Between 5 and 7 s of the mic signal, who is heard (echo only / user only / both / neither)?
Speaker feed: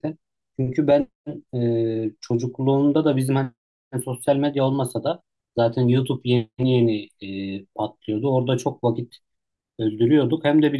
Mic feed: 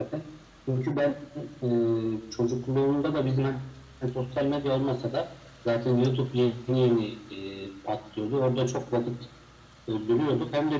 echo only